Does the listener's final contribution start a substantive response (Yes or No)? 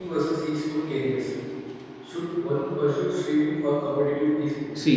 Yes